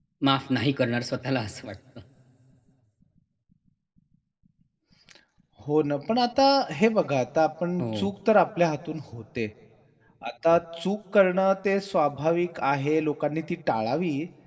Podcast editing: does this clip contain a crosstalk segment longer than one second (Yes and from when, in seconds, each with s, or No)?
No